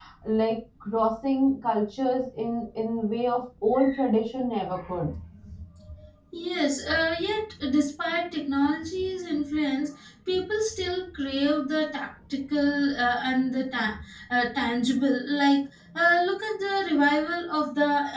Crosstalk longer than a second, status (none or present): none